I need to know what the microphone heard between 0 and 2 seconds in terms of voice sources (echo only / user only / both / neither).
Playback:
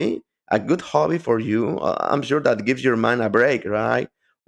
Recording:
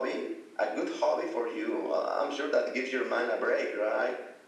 echo only